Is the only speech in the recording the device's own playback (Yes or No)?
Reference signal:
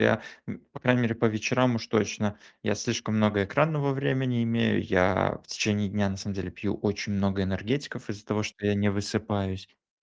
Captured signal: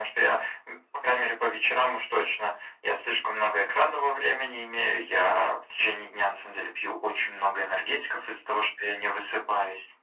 Yes